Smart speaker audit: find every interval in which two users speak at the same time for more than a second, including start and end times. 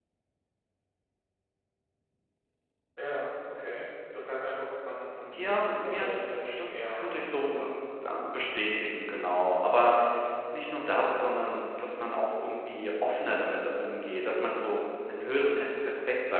5.4-7.6

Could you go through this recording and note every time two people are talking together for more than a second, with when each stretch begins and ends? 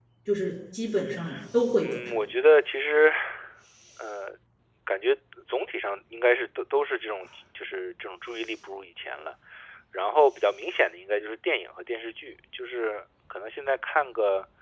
none

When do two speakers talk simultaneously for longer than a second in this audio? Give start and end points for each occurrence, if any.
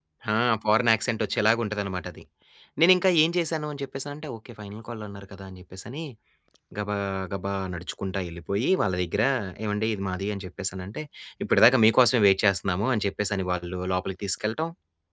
none

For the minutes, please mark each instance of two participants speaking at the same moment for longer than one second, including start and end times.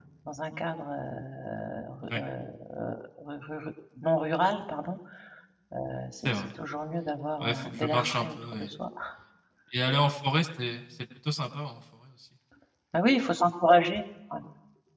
7.4-8.7

